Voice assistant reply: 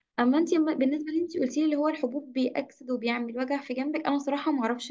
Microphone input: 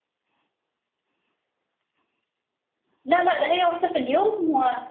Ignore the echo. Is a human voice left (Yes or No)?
Yes